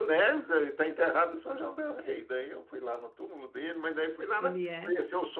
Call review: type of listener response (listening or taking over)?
listening